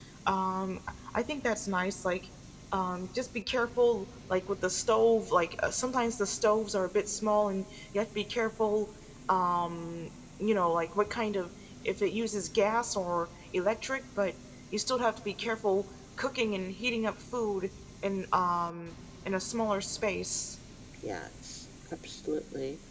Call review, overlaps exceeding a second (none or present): none